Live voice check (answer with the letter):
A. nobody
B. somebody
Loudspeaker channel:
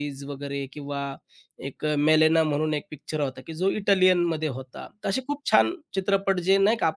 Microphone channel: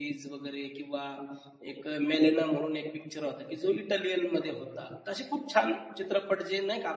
A